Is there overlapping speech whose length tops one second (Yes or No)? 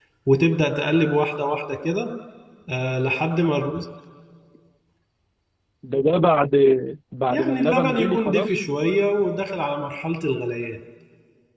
Yes